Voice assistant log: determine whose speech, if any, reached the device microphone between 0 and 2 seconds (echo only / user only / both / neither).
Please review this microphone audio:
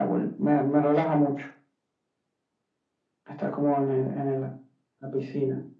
echo only